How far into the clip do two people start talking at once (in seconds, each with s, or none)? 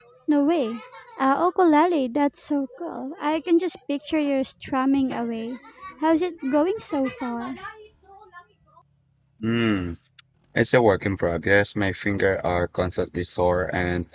none